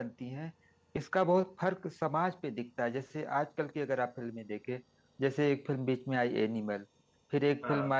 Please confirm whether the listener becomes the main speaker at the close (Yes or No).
No